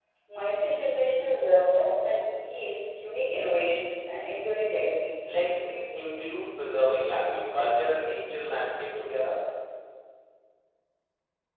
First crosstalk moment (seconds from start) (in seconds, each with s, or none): none